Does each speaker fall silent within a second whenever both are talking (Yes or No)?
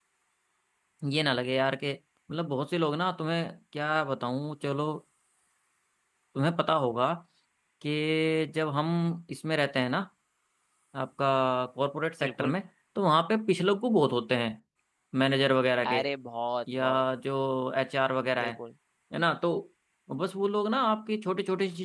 Yes